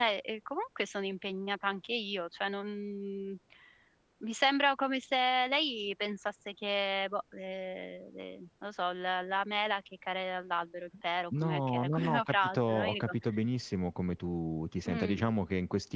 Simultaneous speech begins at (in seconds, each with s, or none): 11.4 s